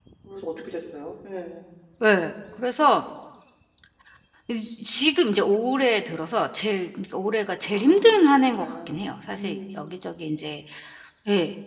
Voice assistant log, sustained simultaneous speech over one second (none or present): present